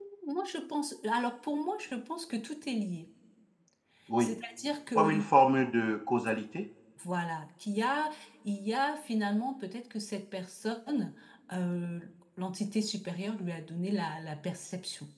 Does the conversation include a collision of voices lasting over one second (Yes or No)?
No